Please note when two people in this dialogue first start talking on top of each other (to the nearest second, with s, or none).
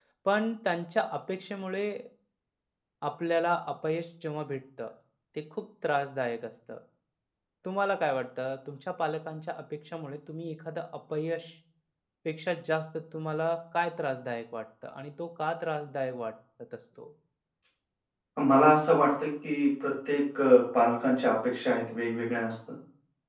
none